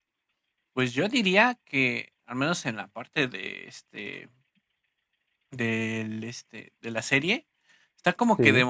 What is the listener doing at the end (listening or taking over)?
listening